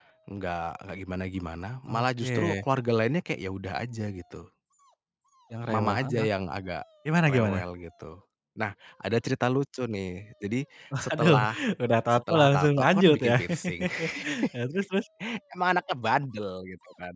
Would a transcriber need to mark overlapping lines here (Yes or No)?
Yes